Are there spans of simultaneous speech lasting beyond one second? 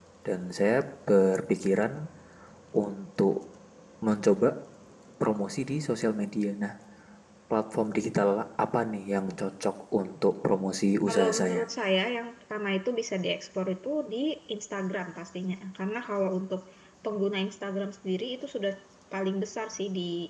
No

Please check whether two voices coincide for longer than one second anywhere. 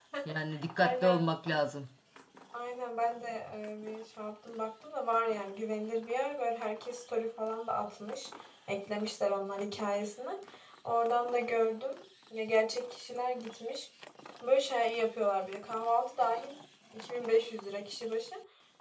No

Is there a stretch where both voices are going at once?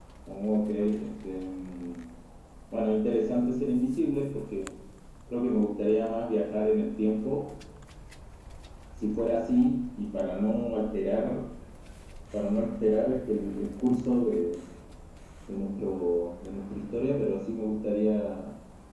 No

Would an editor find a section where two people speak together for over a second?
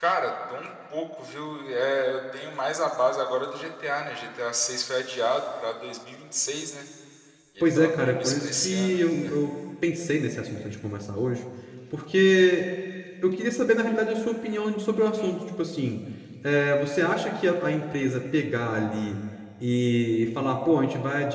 Yes, from 7.6 s

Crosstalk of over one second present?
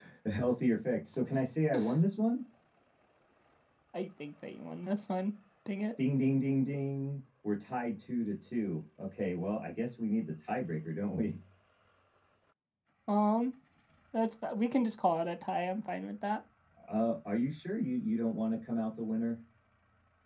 No

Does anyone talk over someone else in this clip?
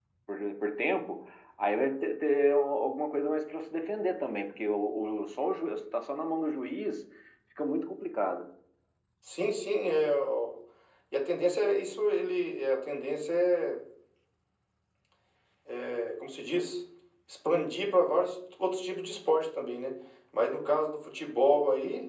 No

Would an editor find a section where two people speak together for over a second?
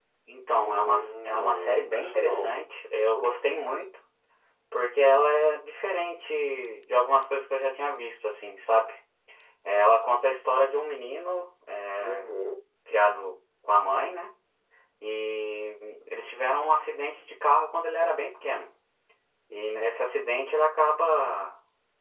Yes, from 0.6 s

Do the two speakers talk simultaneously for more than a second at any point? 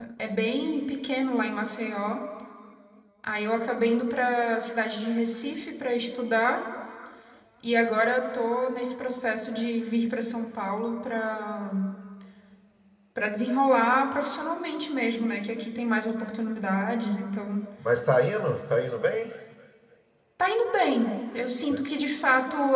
No

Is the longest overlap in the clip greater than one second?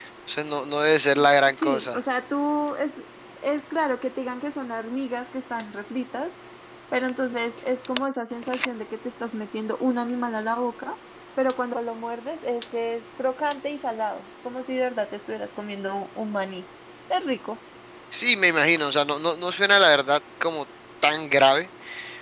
No

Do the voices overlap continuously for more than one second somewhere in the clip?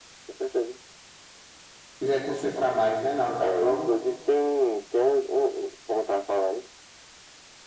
No

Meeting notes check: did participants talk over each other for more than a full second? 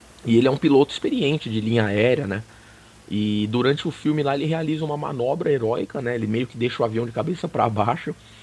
No

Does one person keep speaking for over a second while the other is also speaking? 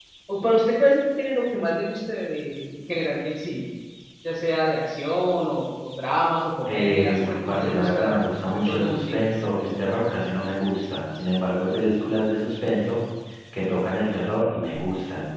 Yes, from 6.7 s

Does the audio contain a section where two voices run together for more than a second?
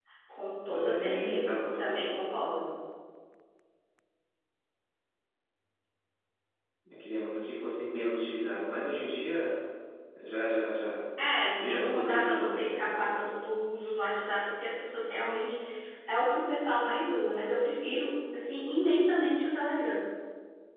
Yes, from 0.7 s

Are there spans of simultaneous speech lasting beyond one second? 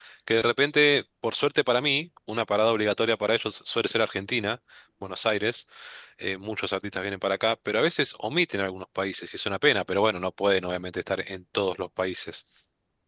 No

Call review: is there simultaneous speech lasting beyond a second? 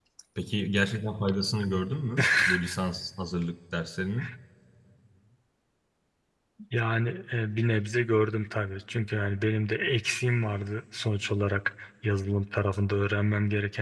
No

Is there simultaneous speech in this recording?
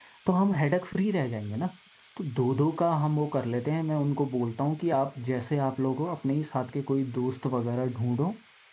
No

